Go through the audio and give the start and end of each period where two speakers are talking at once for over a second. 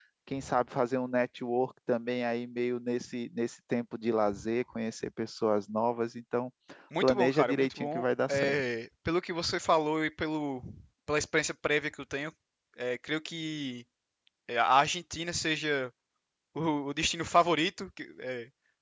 7.0-8.6

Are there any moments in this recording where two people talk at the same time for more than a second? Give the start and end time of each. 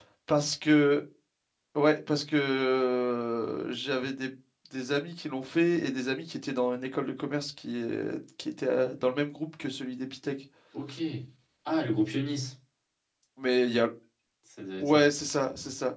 none

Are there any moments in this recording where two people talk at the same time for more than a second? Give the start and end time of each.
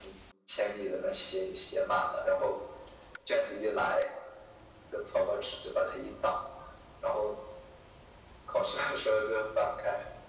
none

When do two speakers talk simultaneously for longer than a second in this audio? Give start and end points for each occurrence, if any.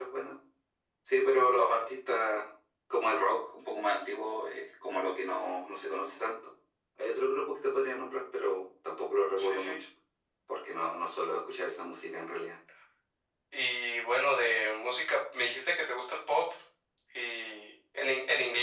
none

